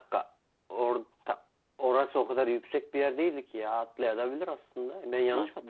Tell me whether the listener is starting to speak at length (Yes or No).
Yes